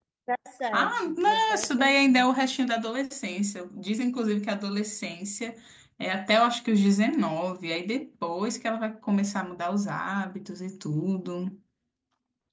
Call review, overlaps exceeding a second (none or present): present